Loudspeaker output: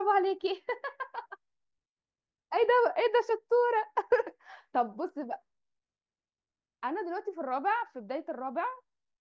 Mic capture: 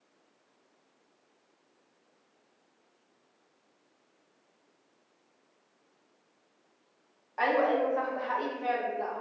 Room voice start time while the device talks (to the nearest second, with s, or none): 7 s